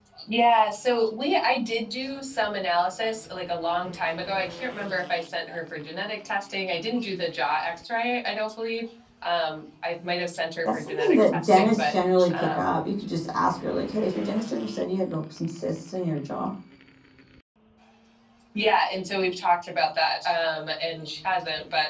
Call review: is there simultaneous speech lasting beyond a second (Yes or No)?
Yes